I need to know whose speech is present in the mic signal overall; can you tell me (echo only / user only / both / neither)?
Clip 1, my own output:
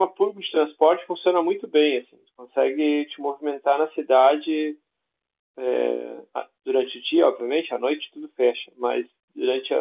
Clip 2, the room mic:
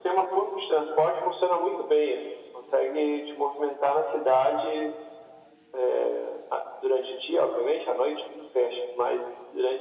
echo only